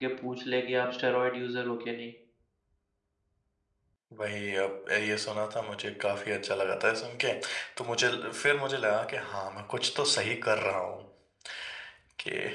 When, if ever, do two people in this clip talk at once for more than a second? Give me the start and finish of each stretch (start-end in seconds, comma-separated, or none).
none